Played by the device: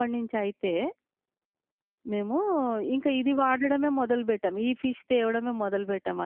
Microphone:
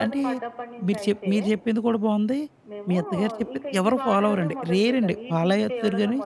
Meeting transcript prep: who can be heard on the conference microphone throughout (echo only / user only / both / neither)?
both